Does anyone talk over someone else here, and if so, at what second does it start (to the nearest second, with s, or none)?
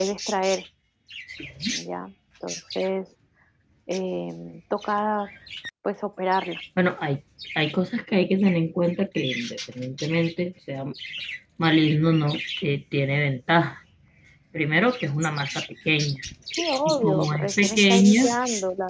17 s